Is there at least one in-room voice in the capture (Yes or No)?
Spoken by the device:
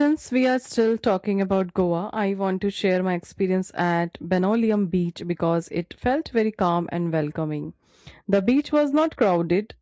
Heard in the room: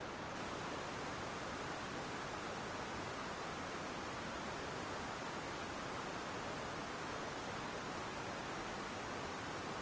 No